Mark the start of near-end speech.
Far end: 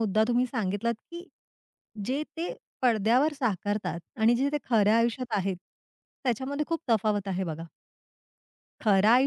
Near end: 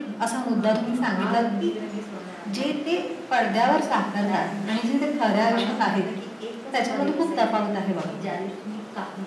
0.5 s

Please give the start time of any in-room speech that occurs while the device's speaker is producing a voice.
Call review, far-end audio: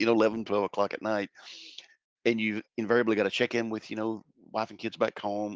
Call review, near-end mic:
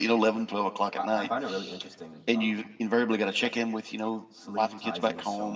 1.0 s

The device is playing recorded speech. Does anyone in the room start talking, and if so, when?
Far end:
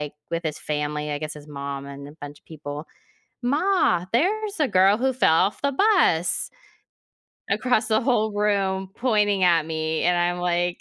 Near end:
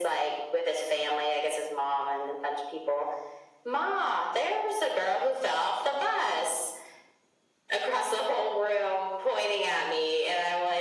none

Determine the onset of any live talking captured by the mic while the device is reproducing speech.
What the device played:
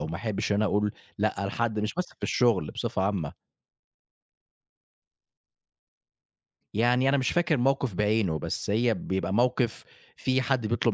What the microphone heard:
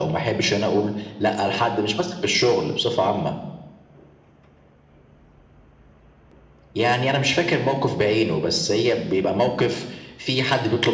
none

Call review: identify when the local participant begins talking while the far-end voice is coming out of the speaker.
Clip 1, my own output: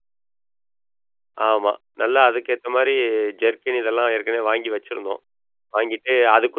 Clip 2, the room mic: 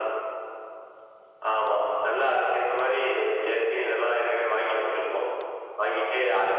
none

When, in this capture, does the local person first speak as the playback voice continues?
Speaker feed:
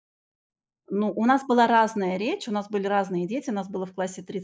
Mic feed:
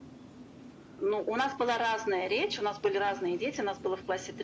none

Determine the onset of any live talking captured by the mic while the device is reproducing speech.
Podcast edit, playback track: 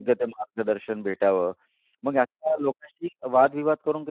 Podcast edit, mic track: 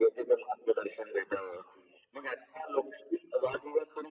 none

